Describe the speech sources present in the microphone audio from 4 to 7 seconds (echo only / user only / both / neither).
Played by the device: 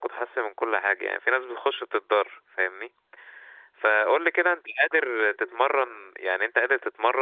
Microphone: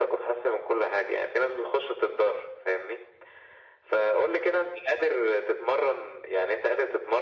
echo only